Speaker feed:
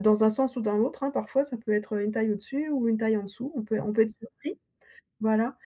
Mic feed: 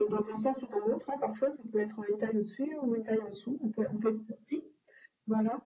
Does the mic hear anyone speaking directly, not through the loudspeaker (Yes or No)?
No